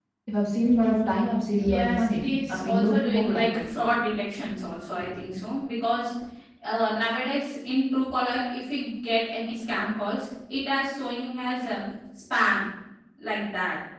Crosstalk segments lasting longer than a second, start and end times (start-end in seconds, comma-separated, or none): 1.6-3.6